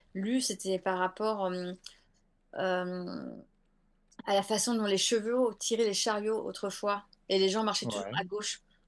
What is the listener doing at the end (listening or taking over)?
listening